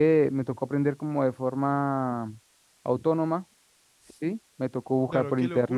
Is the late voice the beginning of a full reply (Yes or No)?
Yes